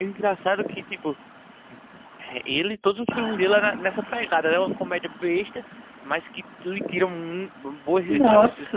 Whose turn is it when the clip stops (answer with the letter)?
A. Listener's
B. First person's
A